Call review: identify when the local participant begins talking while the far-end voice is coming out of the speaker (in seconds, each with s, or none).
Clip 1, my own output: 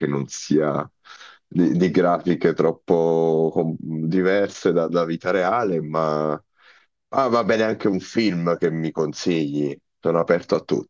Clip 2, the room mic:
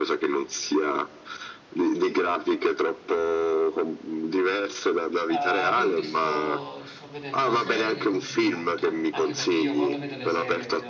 5.2 s